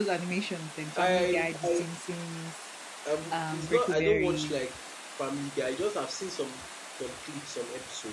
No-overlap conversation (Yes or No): No